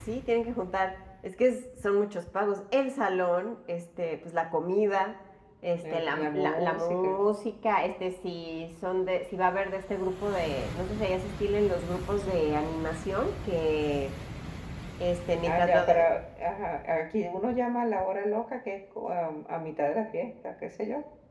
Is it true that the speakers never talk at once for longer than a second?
No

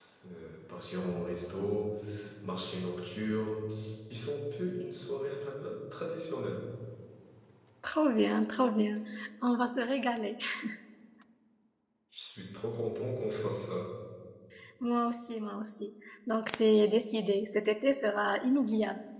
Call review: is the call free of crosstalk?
Yes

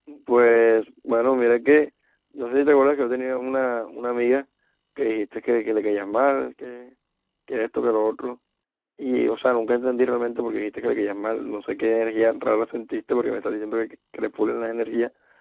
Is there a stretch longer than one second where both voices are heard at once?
No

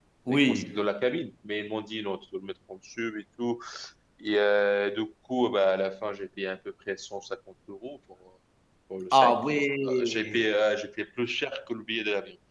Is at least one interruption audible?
Yes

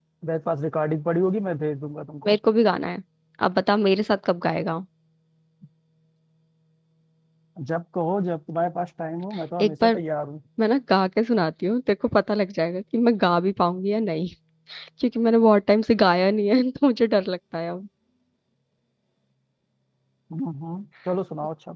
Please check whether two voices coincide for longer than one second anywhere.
No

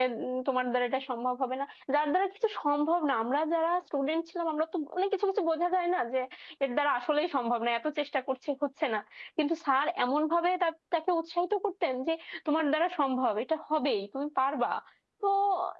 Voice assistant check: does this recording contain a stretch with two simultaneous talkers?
No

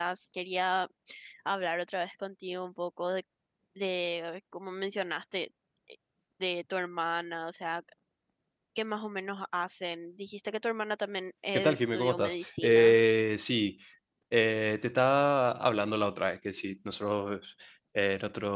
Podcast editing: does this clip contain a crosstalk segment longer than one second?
Yes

